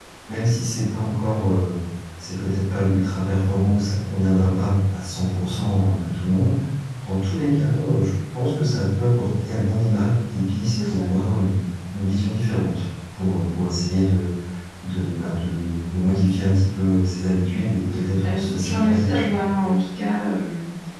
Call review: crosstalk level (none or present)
present